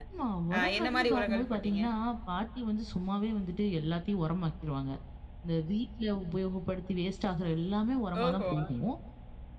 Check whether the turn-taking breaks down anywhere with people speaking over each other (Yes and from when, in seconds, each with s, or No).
Yes, from 0.5 s